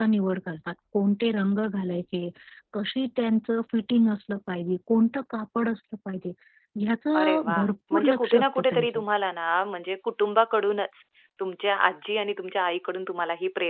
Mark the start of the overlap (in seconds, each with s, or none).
7.2 s